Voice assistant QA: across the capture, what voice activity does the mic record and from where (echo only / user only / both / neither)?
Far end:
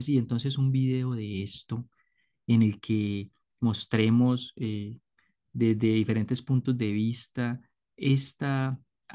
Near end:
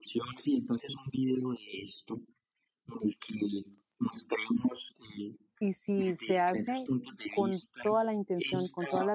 both